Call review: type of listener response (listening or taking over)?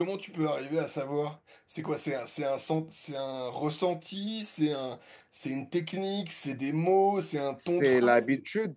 taking over